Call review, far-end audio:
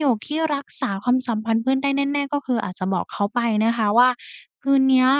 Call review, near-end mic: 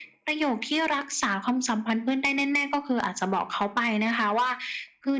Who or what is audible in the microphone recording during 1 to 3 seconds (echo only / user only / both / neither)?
echo only